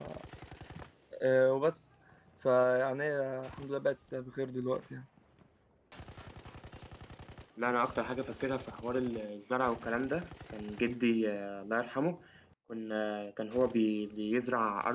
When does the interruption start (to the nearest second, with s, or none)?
none